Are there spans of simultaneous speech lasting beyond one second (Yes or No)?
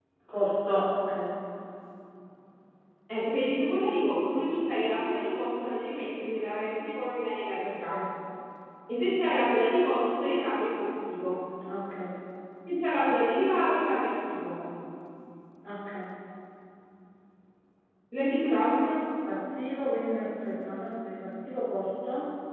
No